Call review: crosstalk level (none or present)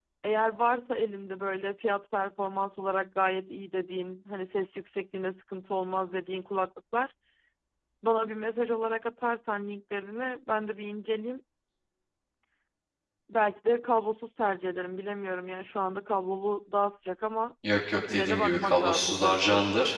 present